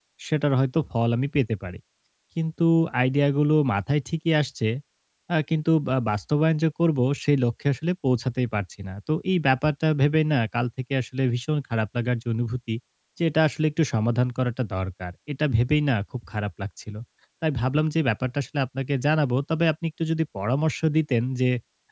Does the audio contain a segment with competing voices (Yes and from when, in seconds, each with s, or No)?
No